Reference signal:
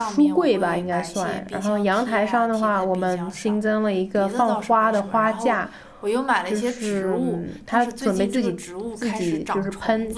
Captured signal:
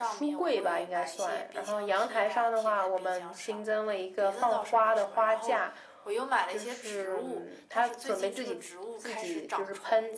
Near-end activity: none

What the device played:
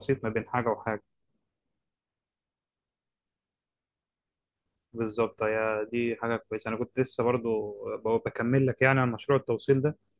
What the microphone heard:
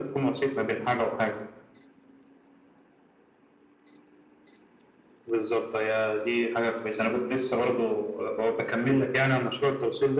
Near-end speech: none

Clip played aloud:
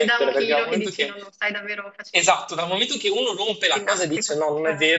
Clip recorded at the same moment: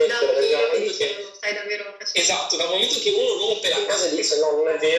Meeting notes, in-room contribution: none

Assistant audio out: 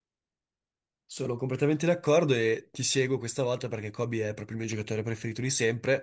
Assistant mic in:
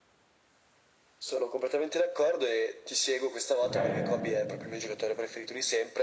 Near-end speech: present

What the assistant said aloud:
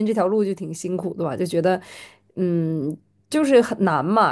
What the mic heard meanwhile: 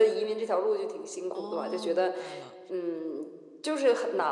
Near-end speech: present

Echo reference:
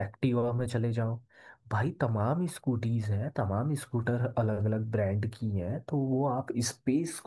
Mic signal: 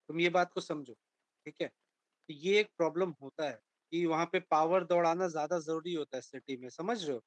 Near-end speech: present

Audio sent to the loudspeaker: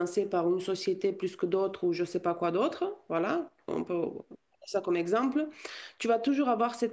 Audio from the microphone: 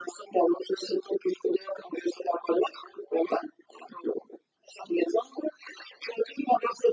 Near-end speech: none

